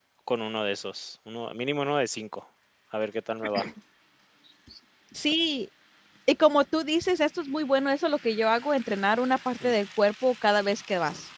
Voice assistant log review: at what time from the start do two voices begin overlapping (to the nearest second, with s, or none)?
none